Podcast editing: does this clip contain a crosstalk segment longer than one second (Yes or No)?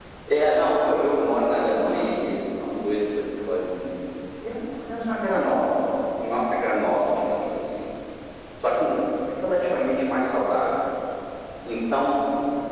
No